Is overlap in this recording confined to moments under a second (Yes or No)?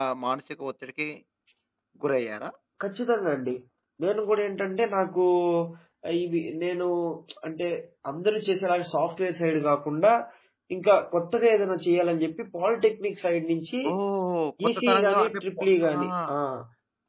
No